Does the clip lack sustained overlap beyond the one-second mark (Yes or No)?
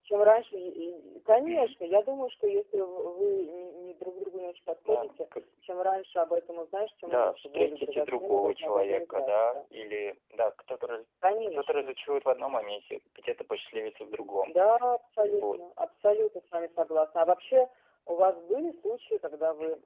No